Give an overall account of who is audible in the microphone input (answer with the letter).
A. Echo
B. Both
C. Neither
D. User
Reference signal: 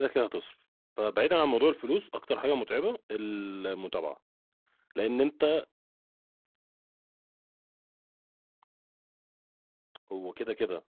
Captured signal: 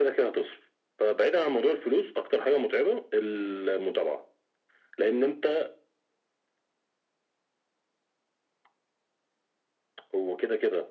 A